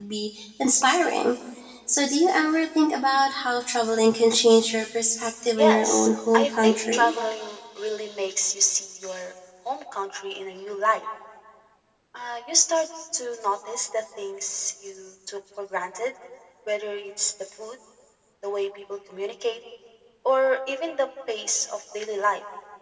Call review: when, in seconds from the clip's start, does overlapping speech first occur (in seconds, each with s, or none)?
5.6 s